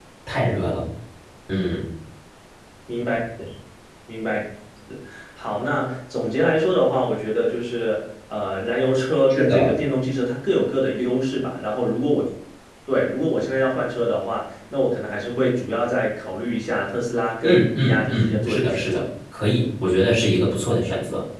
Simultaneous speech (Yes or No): Yes